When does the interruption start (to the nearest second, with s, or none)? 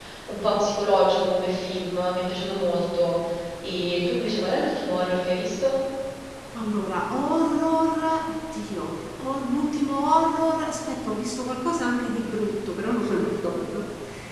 none